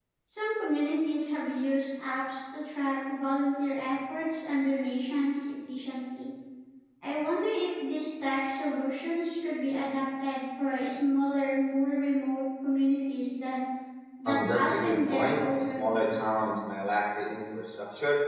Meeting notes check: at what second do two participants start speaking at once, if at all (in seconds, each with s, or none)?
14.3 s